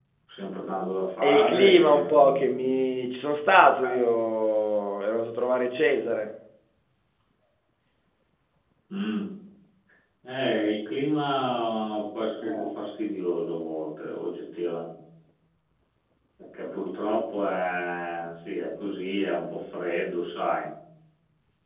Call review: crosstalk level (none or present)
present